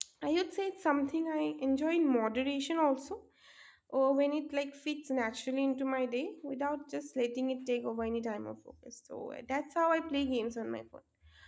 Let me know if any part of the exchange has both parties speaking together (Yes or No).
No